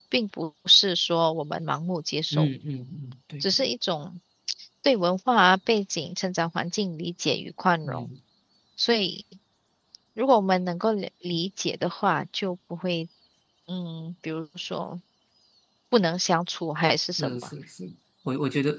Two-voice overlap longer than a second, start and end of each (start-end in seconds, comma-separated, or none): none